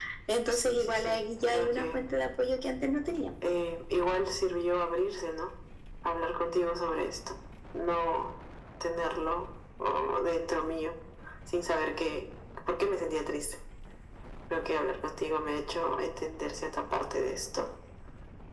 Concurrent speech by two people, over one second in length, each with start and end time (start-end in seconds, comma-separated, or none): 0.5-2.0